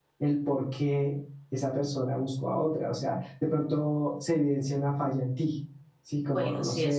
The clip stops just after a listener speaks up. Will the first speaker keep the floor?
No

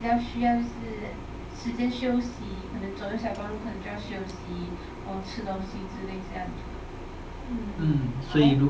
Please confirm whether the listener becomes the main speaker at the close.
Yes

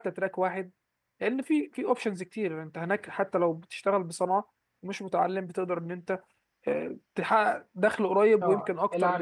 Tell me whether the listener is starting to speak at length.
Yes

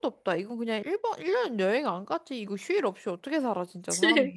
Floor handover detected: Yes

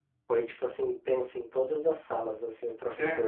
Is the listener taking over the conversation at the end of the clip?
No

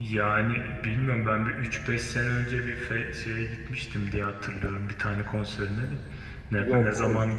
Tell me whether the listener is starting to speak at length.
No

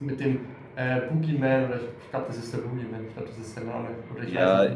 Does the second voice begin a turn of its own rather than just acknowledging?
Yes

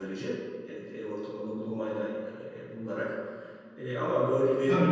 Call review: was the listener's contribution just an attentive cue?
No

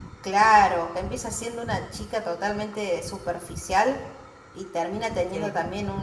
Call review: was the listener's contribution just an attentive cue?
Yes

